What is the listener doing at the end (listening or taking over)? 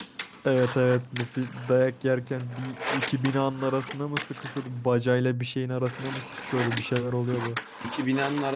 taking over